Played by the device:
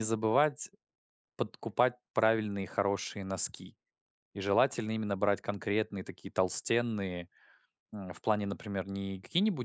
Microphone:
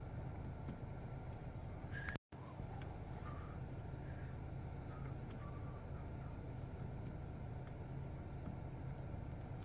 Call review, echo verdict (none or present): none